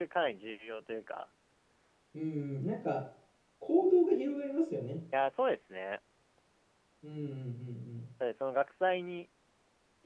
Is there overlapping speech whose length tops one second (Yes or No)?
No